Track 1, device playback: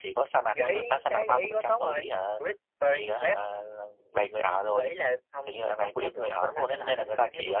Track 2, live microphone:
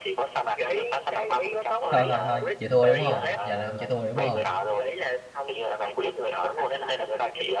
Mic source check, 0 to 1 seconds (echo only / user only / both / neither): echo only